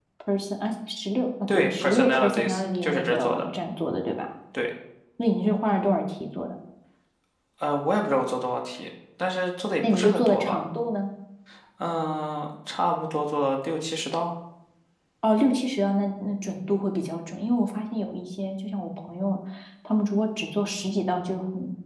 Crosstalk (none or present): present